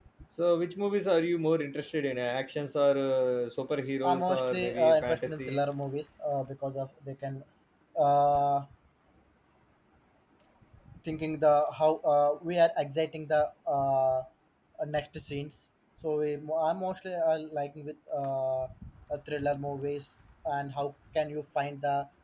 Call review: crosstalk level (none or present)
present